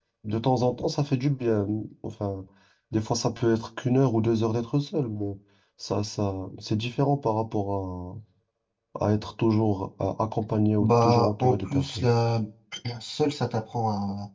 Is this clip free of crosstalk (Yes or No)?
No